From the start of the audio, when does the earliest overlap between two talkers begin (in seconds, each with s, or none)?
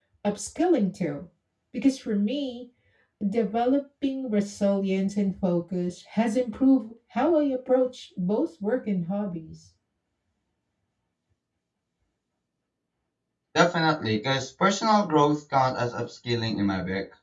none